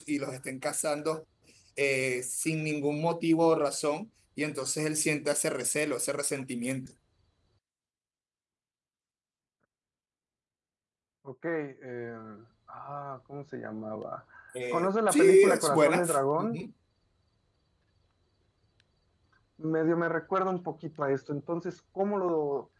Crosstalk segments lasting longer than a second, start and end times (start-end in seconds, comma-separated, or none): 14.7-16.0